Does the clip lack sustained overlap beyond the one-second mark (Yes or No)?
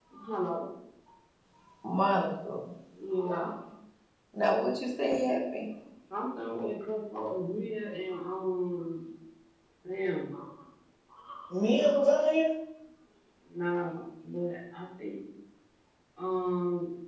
Yes